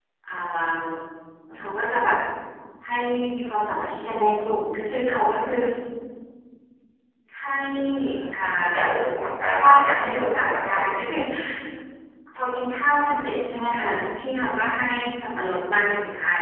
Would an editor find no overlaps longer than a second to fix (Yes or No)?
No